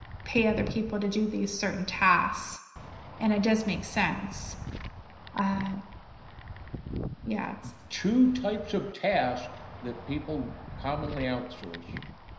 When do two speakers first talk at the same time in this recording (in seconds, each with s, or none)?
none